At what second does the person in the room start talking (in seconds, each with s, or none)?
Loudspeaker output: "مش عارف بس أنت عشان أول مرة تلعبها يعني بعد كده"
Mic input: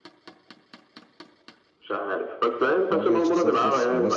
2.9 s